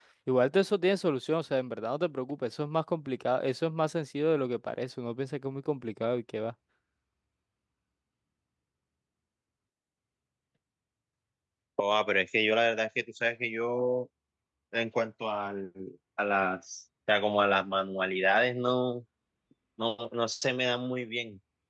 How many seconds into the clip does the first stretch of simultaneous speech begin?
none

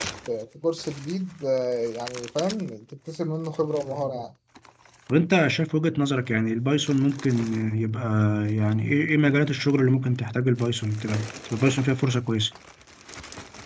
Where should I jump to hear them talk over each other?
none

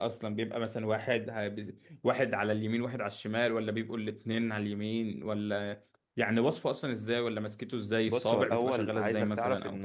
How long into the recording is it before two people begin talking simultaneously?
8.1 s

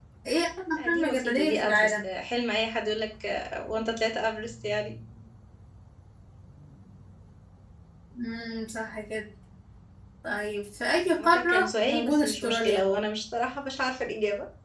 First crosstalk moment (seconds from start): 0.7 s

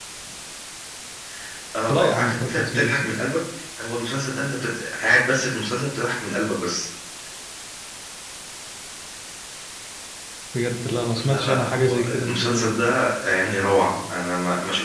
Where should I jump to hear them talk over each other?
1.9 s

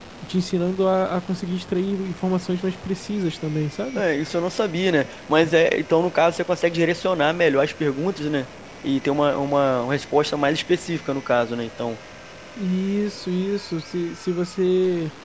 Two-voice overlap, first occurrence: none

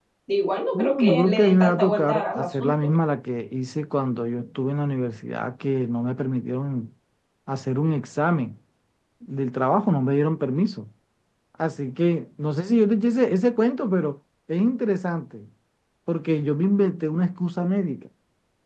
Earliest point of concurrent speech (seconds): 0.7 s

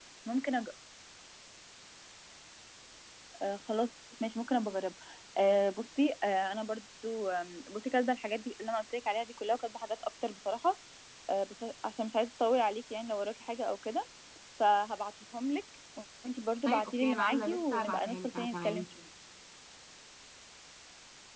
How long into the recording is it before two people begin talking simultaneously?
16.6 s

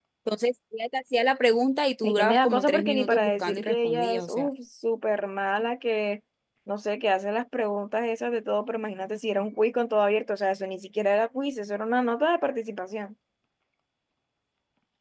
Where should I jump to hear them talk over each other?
2.0 s

